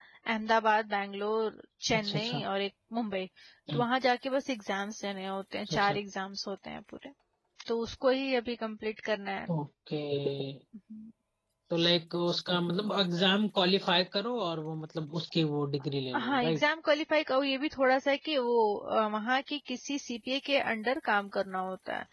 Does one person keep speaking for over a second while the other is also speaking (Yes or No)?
No